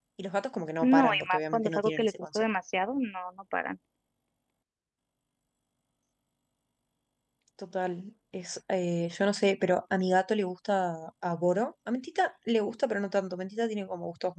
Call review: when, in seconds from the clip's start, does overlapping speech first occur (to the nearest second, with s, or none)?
1 s